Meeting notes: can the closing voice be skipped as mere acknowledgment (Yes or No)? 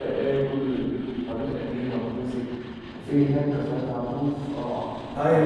No